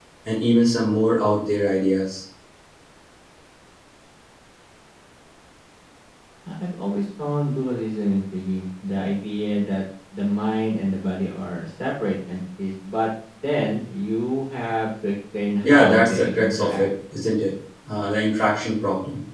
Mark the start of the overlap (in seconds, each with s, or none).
15.6 s